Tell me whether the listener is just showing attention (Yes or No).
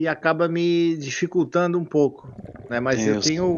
Yes